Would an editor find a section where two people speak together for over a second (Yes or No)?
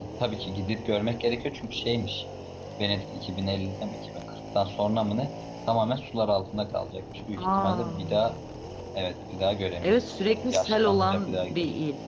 Yes